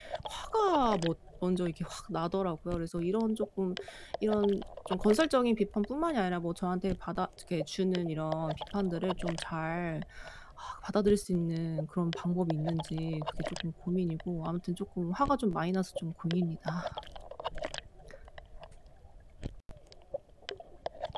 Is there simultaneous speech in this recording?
No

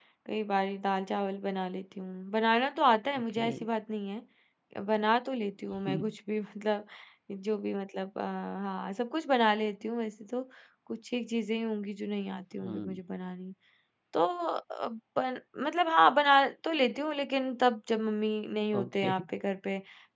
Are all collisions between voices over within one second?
Yes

